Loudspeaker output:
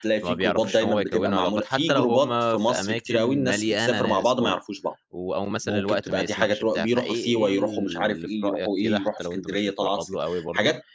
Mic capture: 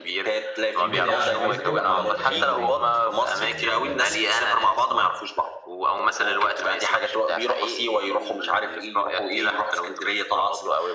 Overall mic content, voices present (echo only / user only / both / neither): both